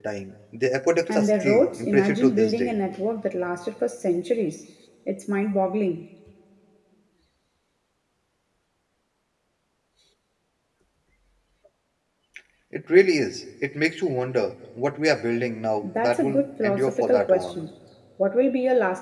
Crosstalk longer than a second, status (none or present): present